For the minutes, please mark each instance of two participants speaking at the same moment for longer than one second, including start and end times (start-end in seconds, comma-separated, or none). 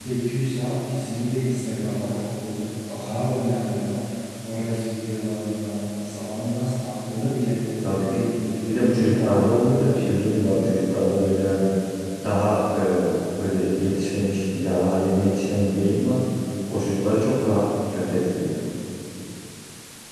8.7-10.1